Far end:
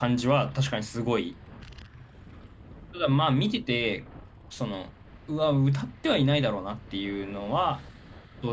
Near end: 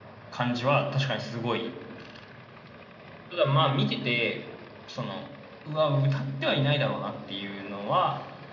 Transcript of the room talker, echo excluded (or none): none